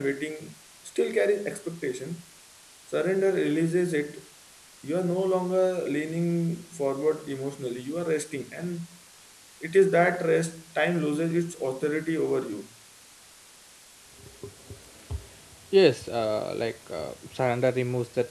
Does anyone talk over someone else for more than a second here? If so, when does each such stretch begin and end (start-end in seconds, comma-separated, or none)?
none